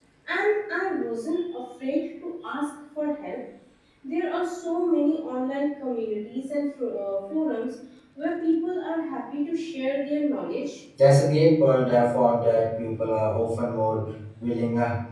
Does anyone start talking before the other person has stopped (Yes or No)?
No